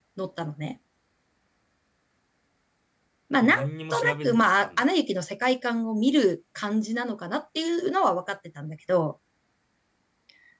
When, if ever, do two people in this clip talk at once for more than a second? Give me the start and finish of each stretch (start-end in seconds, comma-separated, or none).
3.4-4.8